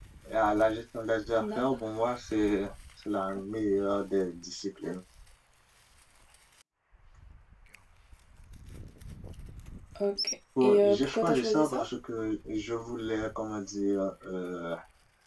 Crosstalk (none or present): present